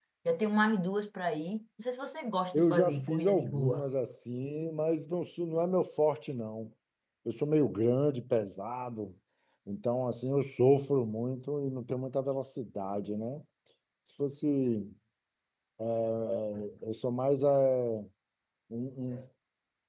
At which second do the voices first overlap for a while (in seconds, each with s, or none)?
2.5 s